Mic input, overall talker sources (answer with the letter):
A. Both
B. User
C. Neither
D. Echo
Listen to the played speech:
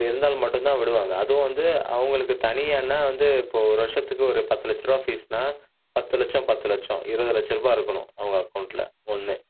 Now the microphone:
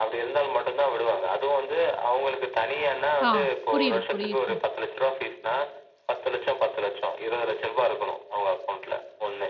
A